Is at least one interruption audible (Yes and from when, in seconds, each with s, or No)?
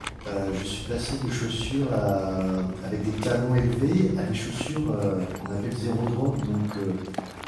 No